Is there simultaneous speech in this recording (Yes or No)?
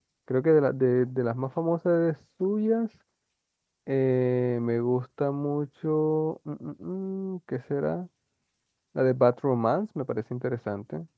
No